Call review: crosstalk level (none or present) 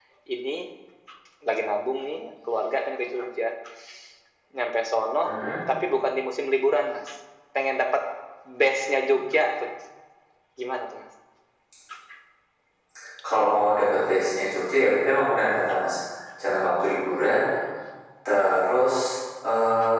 none